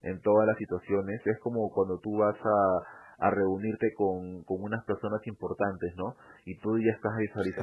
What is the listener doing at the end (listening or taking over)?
listening